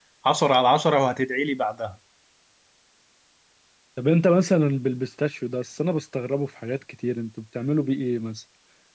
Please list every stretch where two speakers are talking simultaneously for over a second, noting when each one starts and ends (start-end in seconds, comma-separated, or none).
none